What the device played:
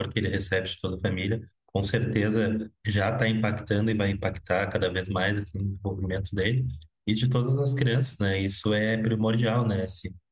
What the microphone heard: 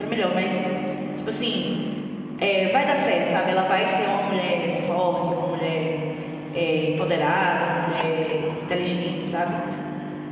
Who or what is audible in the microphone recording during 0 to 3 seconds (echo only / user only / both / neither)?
user only